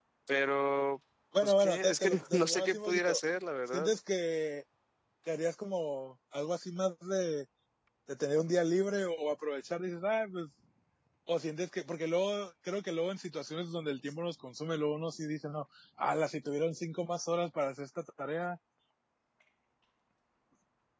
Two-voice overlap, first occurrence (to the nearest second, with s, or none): 1 s